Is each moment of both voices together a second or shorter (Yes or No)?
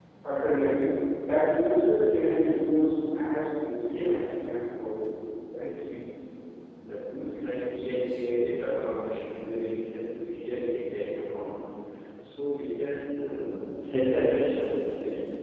Yes